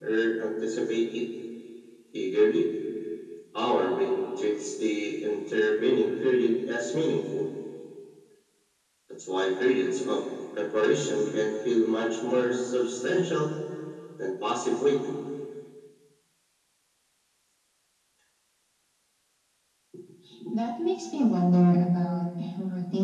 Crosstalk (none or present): none